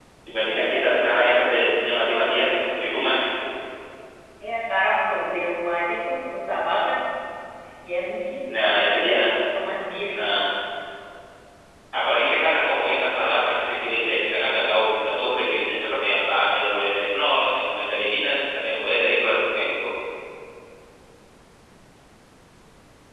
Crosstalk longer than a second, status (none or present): present